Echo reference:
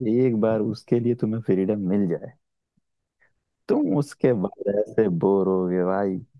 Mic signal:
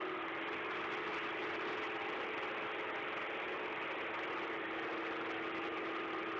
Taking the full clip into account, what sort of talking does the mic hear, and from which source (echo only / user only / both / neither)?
neither